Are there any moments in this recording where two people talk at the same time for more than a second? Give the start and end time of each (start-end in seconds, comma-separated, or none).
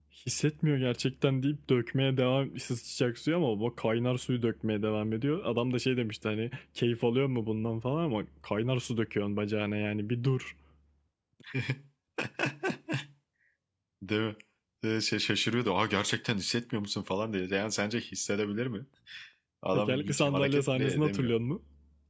19.7-21.3